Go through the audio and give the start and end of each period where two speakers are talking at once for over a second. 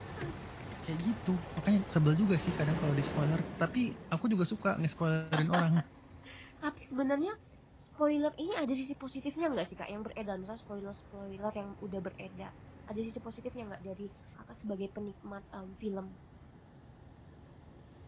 none

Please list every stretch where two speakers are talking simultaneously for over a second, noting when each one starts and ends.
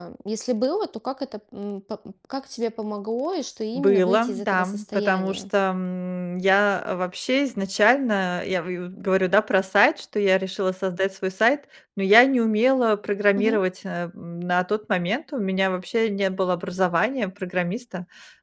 3.8-5.4

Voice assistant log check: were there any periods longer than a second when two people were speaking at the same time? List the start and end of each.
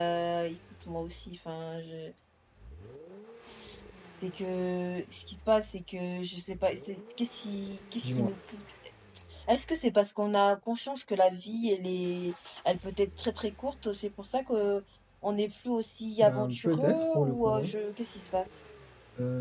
16.2-17.8

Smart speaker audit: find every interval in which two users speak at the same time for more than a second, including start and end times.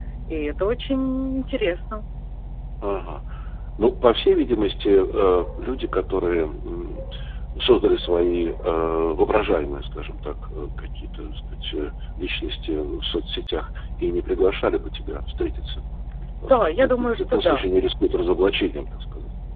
16.4-17.6

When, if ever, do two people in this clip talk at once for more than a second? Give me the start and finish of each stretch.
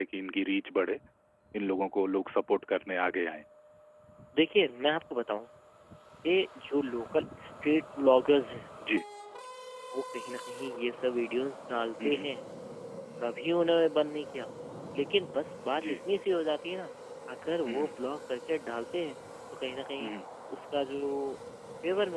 none

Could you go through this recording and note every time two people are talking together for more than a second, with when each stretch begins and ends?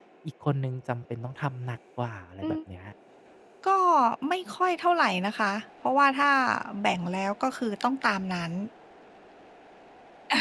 none

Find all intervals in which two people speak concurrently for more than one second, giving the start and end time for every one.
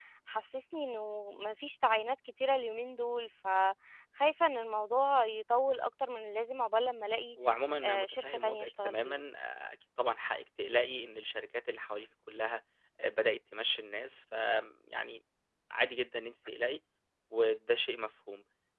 7.8-9.2

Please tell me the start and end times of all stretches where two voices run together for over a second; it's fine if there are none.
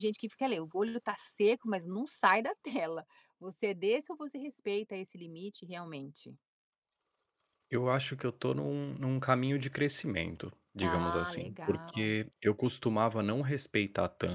10.8-12.1

